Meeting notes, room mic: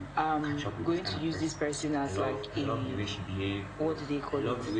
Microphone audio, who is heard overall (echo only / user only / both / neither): echo only